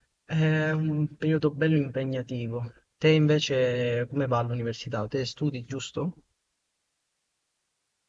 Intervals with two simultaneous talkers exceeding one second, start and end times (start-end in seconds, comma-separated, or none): none